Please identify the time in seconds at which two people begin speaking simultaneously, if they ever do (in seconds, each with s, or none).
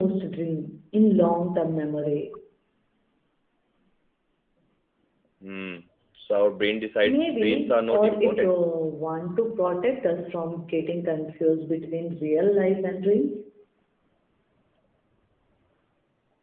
7.0 s